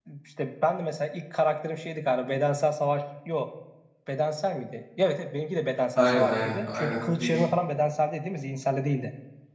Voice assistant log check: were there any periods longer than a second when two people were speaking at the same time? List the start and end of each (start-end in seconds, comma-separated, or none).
6.0-7.4